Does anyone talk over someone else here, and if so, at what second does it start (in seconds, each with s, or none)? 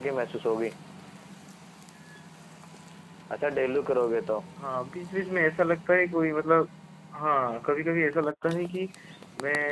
none